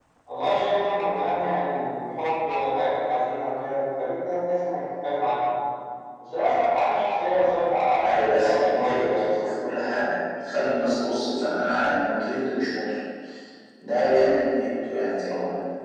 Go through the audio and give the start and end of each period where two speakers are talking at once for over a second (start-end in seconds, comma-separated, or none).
8.0-9.3